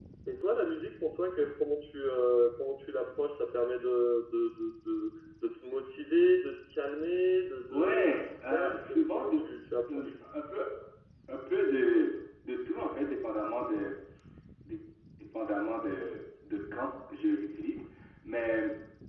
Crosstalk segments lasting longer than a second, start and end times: 7.7-9.3

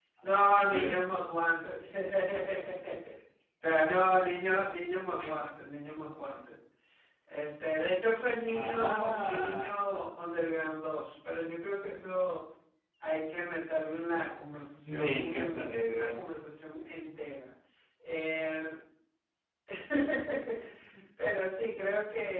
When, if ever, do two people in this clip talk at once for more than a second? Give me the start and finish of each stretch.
8.4-9.8, 14.9-16.1

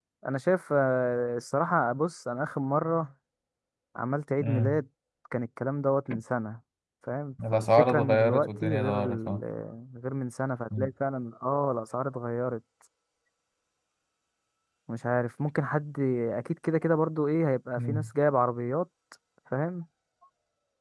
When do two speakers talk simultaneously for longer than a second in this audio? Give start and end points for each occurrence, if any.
7.5-9.4

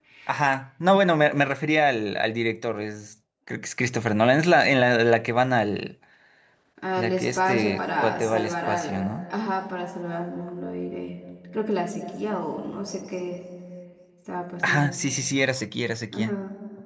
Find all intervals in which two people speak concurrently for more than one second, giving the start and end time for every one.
7.0-9.0

